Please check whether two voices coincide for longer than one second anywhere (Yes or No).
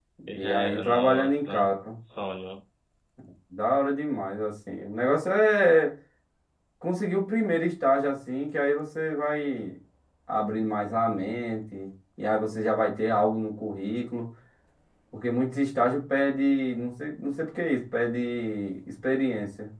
Yes